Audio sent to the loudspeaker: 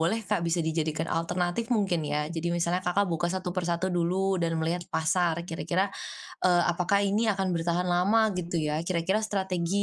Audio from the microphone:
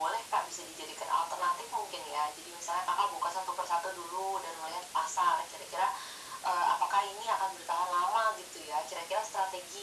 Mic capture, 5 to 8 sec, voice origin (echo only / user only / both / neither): echo only